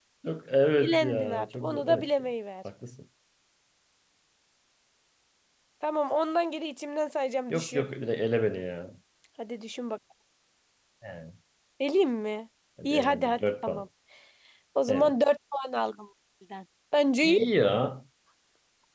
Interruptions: present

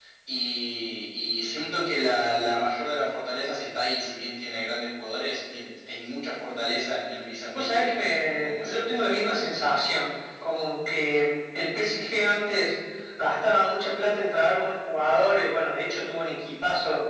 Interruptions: present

